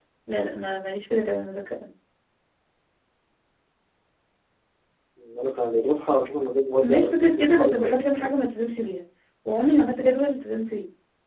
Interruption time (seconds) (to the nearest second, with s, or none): 7 s